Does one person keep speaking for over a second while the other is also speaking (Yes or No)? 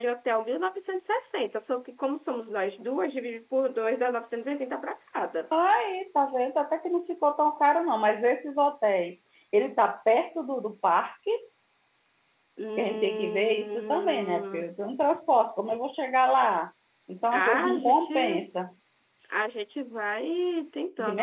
Yes